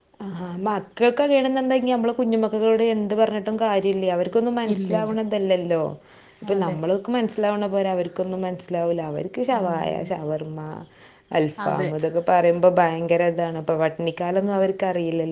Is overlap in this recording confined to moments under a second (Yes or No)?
Yes